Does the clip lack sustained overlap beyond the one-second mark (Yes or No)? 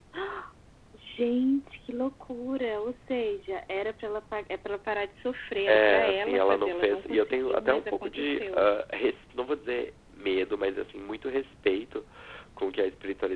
No